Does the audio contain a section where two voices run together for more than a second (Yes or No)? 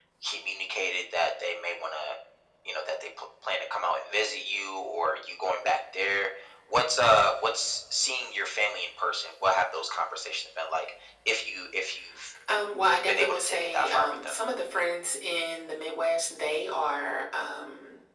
Yes